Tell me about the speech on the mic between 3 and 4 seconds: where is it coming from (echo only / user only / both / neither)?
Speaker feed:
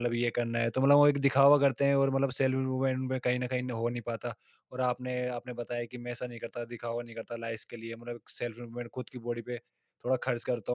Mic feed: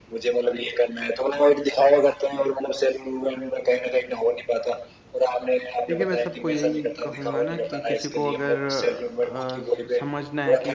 echo only